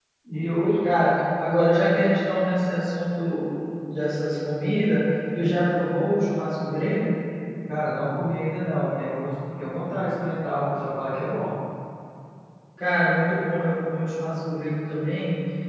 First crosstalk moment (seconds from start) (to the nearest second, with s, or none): none